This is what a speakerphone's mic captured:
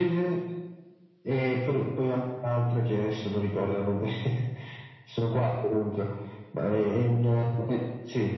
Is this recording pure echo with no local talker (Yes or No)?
Yes